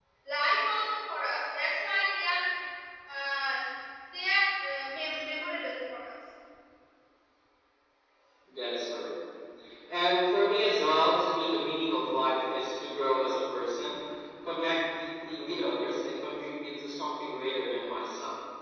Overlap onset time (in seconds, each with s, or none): none